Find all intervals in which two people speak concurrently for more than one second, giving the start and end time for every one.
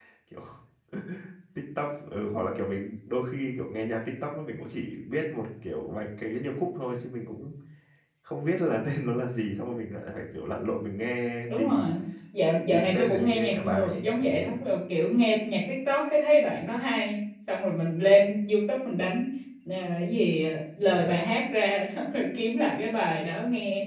12.7-14.5

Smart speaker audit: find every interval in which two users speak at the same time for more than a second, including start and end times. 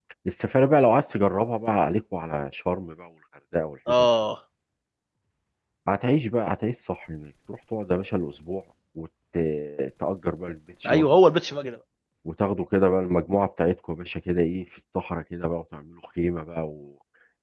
none

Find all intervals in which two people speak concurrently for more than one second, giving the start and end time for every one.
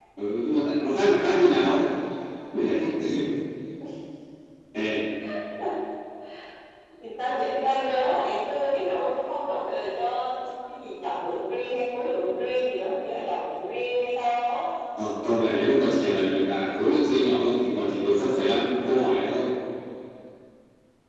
none

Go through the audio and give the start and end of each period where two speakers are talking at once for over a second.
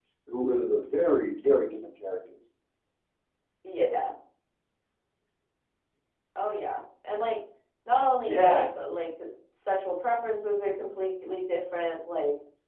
none

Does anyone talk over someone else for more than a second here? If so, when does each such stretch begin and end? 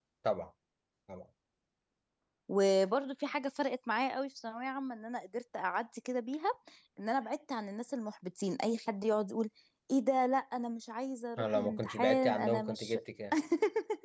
11.4-13.0

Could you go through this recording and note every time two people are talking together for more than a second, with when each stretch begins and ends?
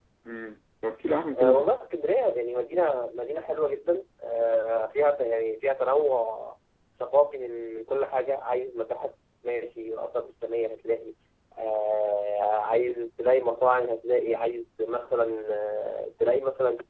none

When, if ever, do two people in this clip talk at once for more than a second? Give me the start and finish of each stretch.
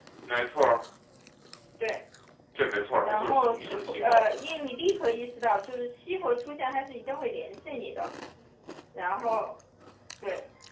3.0-4.2

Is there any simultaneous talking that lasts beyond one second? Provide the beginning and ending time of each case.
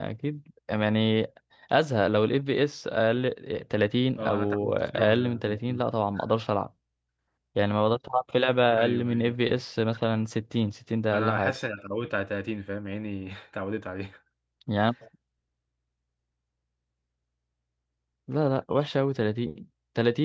4.2-5.8

